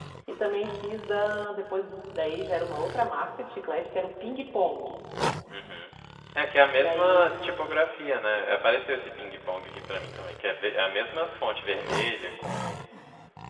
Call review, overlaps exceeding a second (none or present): none